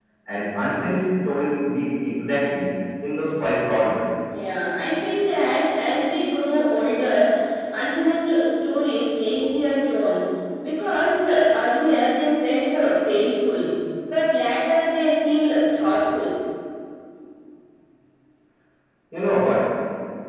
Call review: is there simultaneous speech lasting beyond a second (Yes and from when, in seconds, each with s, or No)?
No